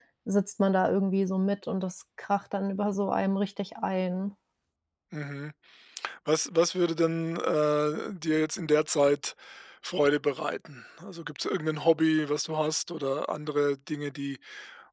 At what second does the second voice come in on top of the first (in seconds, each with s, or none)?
none